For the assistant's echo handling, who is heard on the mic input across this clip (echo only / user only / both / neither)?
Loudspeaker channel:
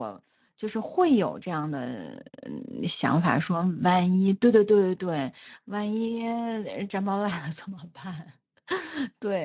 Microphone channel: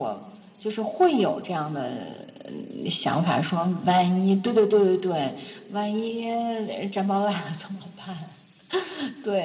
echo only